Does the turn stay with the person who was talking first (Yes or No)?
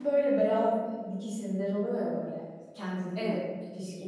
Yes